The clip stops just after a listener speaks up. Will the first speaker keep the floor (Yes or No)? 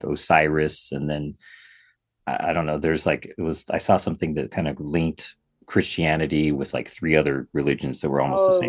No